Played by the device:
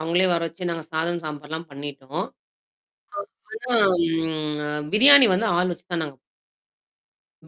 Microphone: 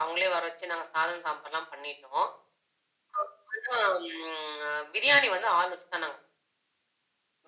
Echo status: present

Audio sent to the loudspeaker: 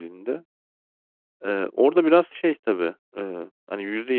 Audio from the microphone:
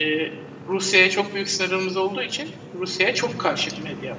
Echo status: none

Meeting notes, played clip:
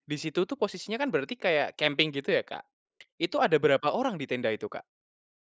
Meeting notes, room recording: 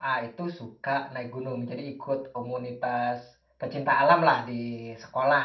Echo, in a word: none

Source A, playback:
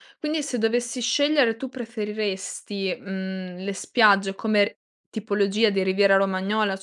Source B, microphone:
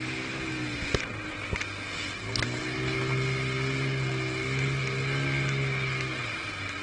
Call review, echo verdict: none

